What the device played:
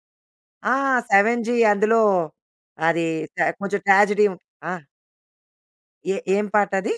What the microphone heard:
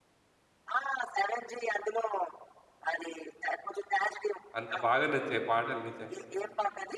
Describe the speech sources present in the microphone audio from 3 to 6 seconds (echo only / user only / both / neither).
both